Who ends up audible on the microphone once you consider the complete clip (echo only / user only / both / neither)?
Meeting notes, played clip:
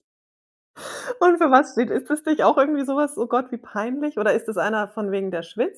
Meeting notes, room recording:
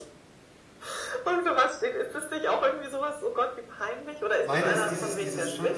both